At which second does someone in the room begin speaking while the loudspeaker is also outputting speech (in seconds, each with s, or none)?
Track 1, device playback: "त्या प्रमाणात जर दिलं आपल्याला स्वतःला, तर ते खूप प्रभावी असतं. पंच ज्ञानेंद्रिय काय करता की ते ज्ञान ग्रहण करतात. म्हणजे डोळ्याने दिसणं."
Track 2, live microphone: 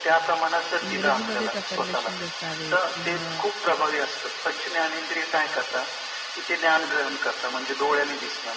0.8 s